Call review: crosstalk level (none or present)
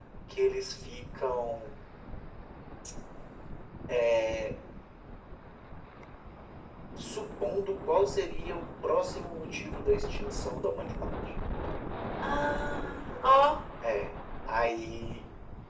none